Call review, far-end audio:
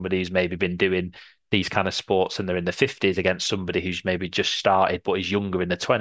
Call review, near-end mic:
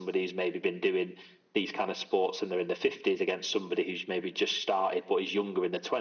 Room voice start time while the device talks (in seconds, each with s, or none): none